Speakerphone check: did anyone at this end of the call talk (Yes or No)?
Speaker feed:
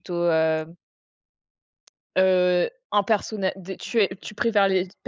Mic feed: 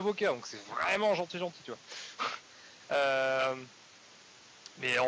Yes